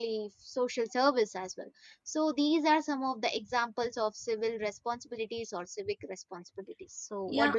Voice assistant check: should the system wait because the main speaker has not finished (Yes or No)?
No